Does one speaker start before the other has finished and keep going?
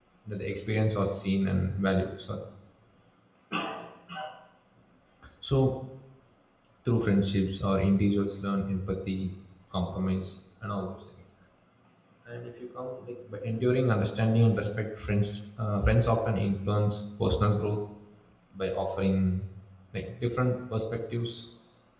No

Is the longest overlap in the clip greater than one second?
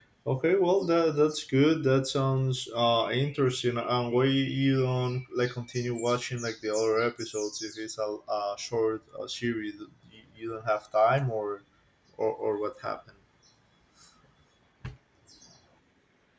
No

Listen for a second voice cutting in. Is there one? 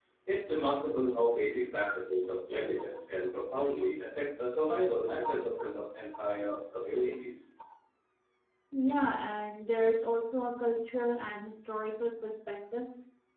No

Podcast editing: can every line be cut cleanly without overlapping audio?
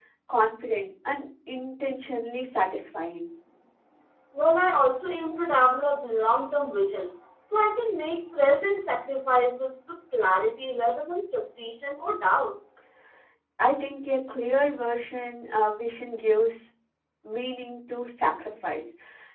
Yes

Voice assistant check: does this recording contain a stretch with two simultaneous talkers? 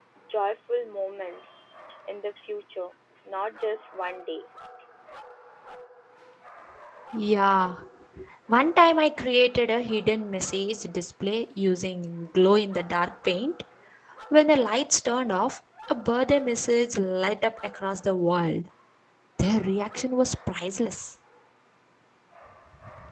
No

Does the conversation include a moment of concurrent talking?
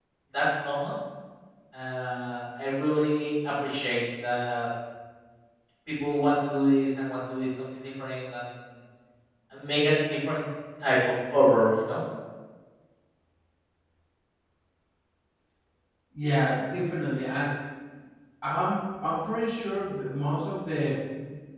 No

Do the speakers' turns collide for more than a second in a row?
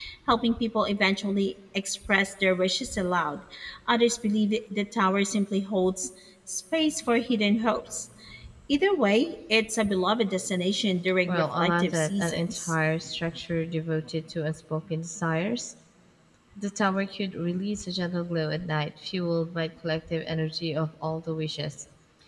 Yes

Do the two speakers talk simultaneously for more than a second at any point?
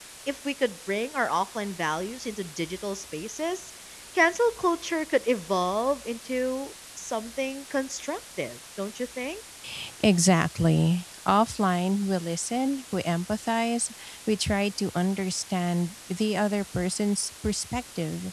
No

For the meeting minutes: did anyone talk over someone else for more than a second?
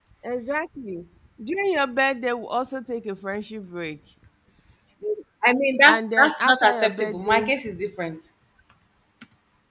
Yes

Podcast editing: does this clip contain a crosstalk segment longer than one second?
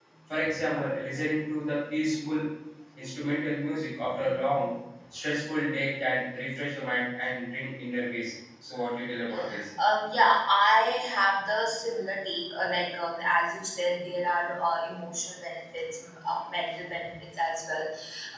No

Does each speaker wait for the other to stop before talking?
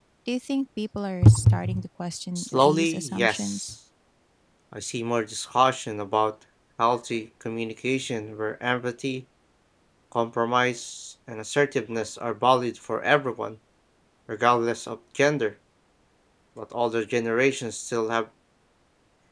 No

